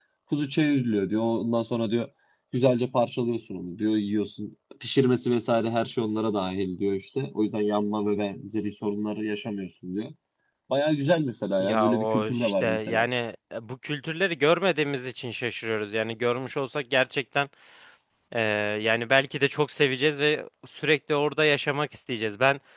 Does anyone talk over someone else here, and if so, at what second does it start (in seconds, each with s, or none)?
11.6 s